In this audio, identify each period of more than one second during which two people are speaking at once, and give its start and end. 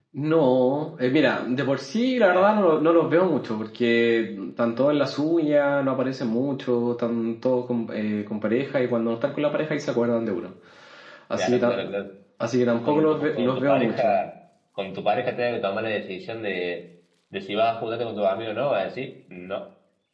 12.8-14.2

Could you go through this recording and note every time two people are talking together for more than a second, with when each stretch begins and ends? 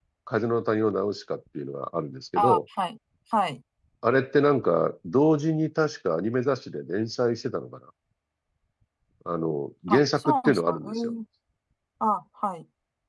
9.9-11.1

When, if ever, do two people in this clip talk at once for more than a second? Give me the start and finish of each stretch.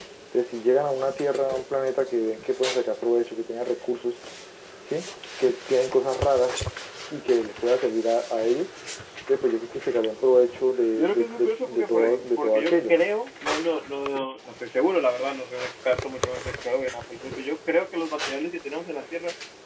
10.9-13.0

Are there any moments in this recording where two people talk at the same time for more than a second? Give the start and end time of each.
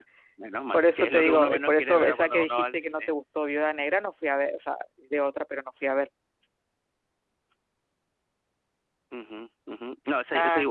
0.7-3.1

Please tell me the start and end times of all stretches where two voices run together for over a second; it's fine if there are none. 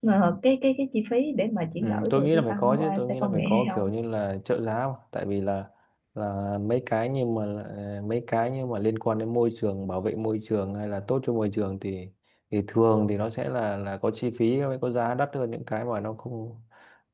1.8-3.9

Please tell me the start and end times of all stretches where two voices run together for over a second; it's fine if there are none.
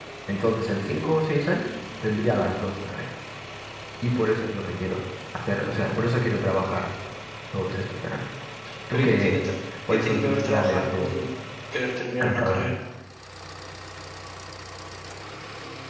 9.9-11.2

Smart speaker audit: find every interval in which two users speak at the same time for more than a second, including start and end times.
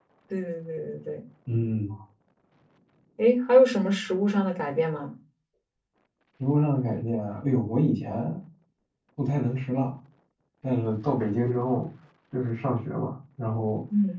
none

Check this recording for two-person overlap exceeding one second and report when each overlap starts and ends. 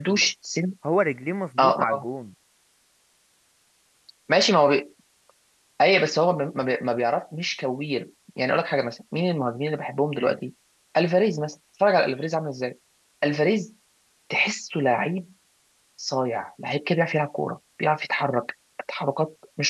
none

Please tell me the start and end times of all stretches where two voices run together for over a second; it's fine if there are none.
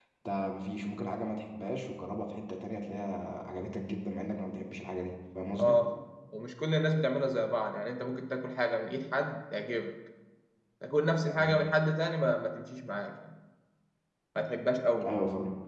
none

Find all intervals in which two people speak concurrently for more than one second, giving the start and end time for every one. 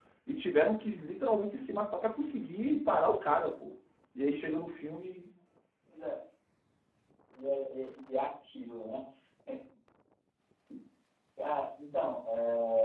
none

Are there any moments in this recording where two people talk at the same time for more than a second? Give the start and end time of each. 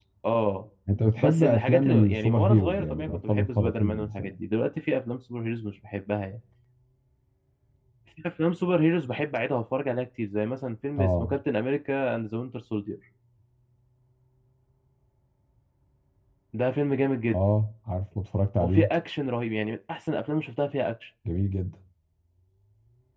1.2-4.3

